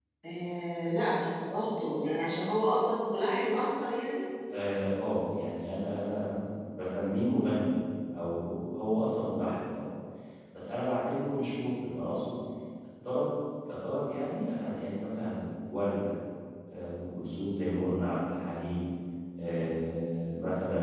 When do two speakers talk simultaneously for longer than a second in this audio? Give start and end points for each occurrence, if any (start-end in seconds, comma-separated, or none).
none